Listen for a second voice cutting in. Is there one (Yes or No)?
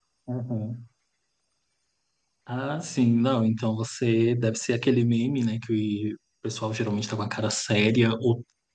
No